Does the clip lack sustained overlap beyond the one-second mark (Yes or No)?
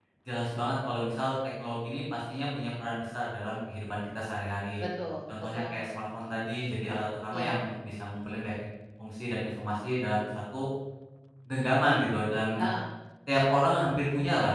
Yes